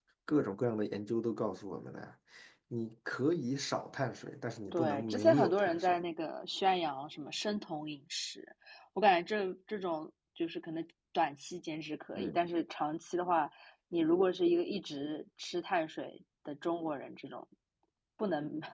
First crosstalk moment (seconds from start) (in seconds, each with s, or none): 4.7 s